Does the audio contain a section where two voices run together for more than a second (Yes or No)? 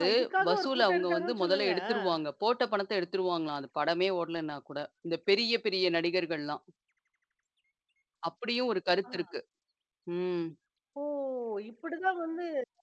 Yes